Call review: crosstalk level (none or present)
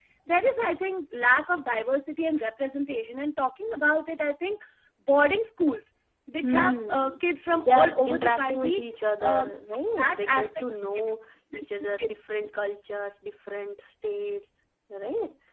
present